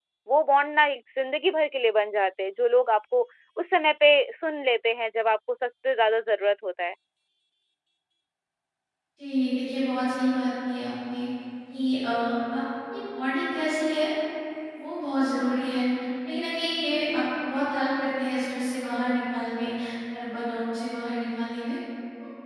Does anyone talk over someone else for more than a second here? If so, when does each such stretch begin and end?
none

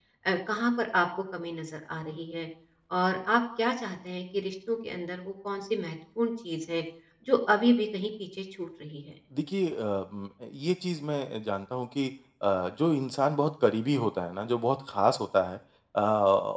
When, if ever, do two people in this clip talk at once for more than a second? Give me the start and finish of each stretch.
none

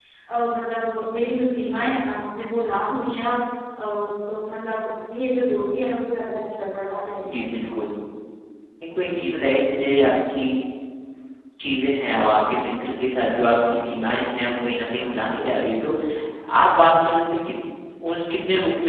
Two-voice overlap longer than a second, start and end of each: none

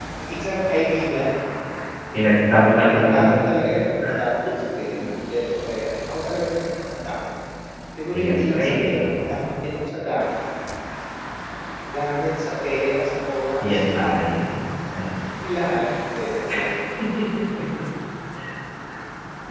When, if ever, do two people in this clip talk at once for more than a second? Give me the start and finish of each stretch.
8.1-9.3

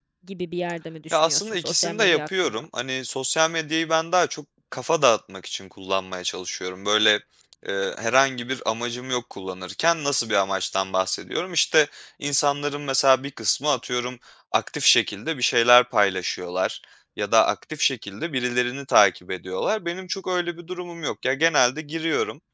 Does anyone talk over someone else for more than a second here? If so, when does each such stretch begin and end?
1.1-2.6

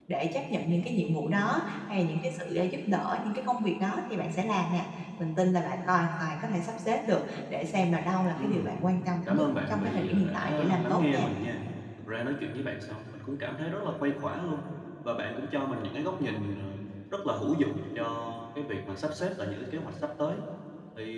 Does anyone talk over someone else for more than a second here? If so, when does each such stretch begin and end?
9.3-11.3

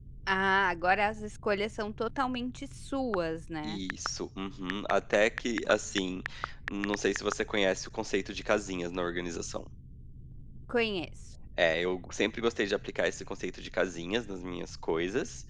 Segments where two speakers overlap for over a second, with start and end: none

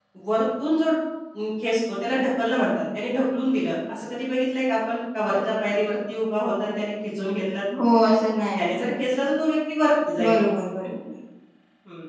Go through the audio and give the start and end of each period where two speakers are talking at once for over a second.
none

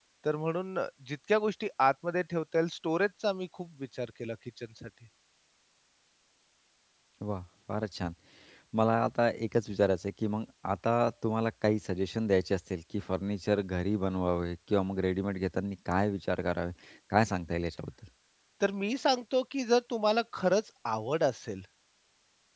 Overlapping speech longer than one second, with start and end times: none

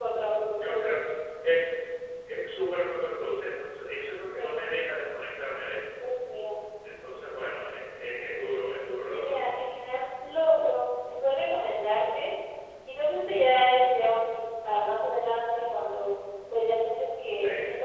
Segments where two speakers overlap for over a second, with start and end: none

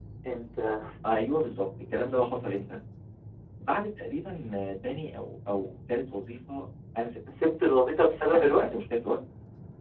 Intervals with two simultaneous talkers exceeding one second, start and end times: none

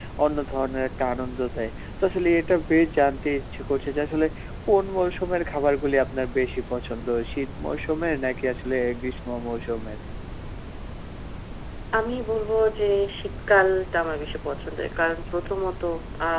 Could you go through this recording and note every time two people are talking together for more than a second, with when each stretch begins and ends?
none

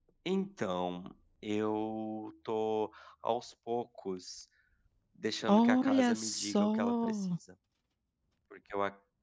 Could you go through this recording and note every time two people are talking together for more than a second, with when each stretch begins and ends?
5.5-7.2

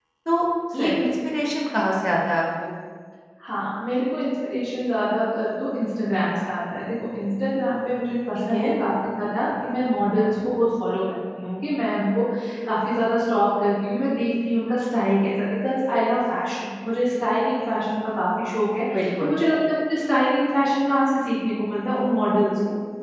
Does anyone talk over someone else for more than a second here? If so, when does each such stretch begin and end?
none

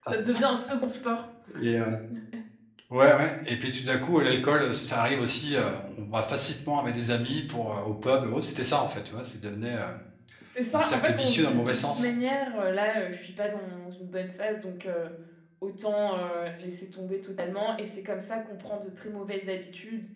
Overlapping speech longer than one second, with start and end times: 10.7-12.1

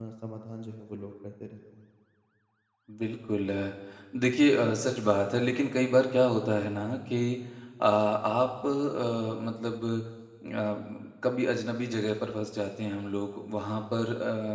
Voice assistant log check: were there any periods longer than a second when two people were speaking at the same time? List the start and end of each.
none

